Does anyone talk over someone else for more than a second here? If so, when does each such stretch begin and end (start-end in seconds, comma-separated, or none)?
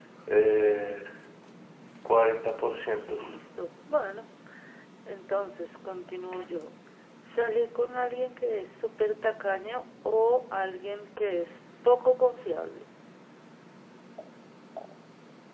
none